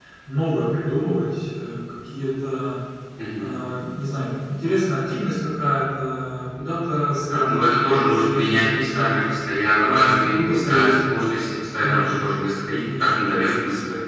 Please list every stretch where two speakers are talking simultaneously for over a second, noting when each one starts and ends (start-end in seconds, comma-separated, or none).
7.3-9.2, 9.8-11.2